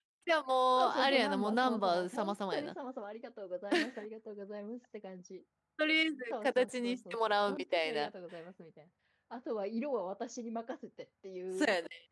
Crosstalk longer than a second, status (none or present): present